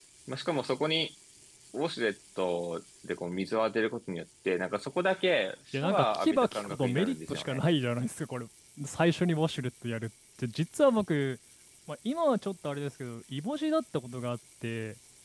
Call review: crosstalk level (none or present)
present